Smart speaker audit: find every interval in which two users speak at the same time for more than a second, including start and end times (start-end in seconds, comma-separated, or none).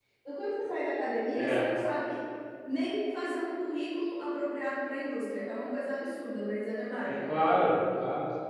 none